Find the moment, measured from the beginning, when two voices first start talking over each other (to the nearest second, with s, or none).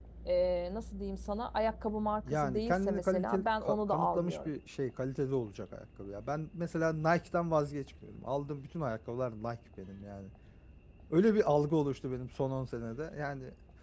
2 s